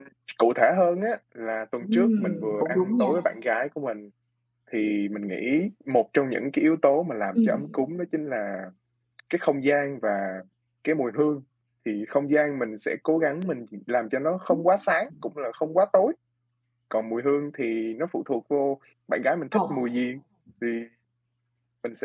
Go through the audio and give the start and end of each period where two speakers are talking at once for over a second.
1.8-3.1

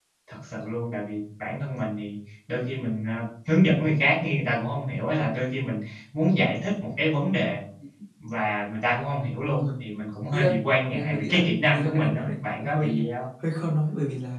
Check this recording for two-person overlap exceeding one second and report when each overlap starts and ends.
10.9-12.9

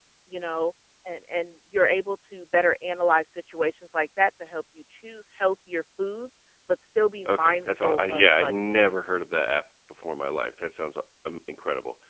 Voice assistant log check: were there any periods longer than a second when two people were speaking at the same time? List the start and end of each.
7.3-8.8

